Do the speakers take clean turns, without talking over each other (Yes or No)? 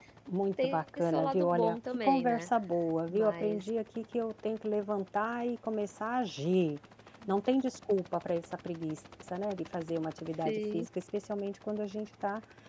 No